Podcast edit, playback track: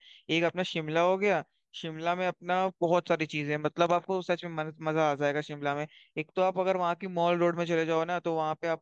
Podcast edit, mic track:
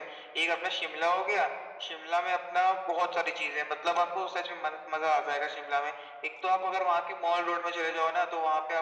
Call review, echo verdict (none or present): present